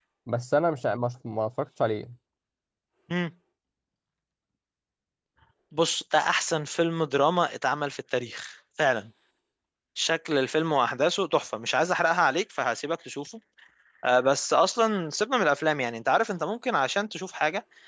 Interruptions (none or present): none